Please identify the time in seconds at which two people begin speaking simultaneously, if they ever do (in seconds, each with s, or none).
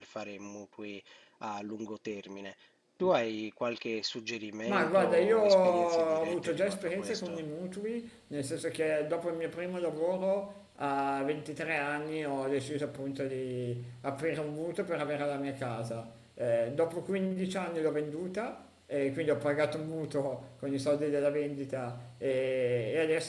4.7 s